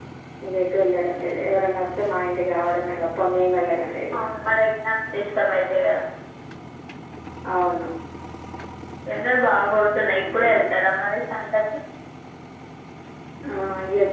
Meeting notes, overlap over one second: none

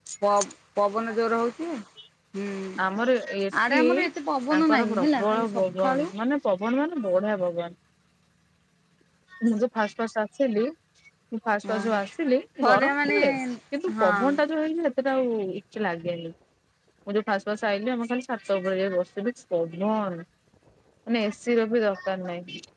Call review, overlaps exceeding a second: present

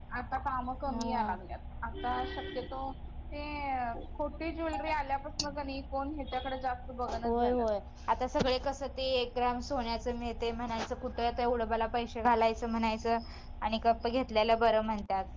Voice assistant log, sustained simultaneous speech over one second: none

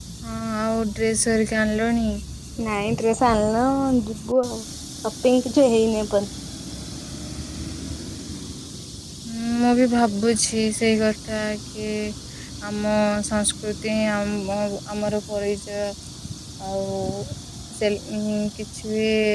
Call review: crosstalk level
none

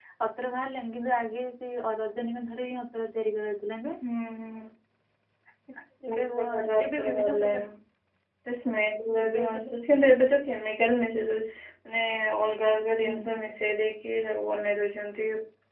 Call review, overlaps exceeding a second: present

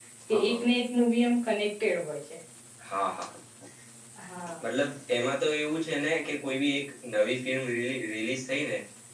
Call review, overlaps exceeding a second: none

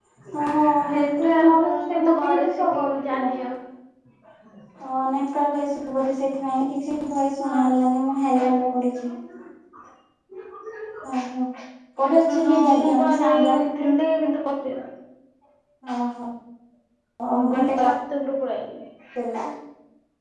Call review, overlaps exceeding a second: present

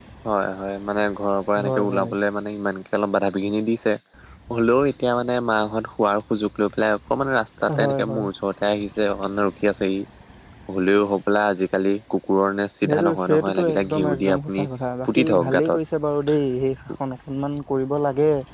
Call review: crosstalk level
present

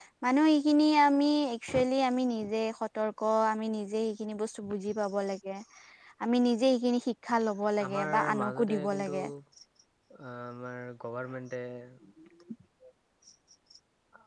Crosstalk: present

